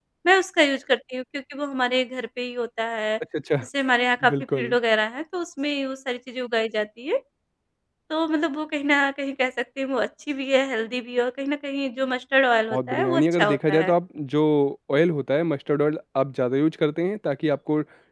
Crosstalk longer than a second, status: present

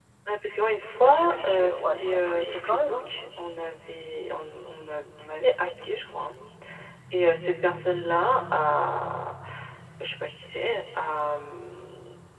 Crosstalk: present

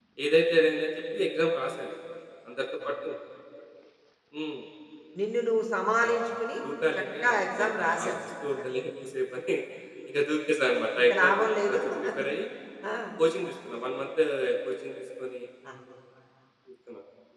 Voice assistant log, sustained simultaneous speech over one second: present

